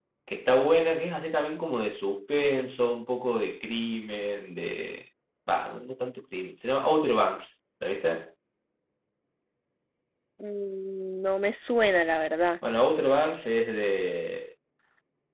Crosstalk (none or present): none